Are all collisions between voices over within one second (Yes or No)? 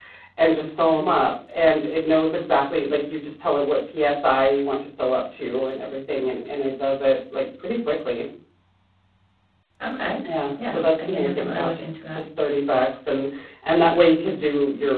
No